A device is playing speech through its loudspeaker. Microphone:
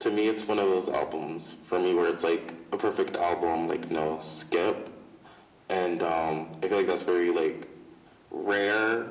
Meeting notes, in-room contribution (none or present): none